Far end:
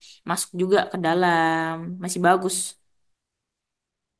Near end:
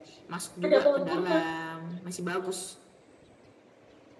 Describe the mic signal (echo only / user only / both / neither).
both